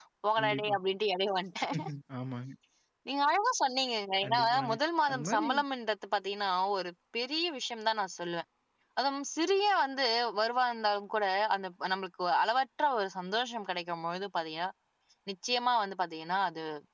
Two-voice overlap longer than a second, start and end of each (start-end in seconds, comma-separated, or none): none